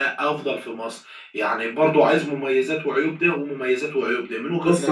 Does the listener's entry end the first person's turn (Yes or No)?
Yes